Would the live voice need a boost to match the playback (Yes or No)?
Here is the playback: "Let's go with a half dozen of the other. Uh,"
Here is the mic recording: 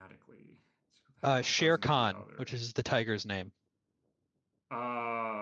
No